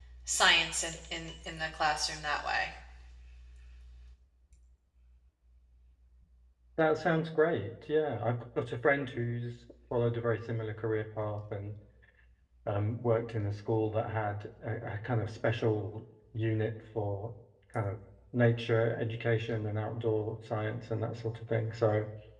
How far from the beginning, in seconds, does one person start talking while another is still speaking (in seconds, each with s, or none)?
none